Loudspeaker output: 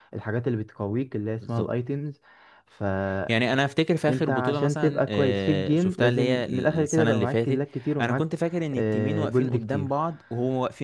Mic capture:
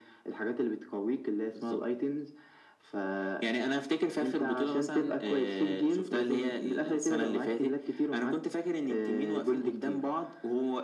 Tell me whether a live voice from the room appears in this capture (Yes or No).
No